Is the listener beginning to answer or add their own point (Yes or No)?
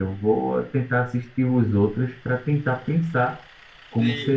Yes